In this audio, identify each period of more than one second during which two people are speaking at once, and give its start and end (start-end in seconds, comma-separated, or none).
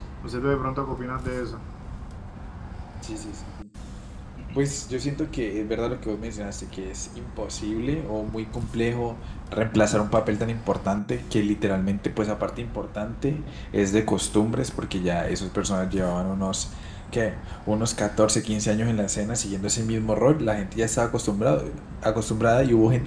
none